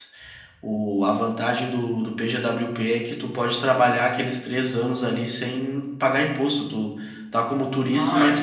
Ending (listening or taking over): listening